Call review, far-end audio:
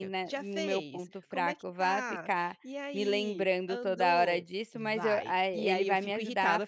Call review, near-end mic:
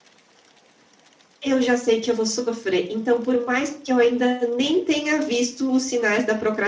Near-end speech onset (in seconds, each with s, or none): 1.4 s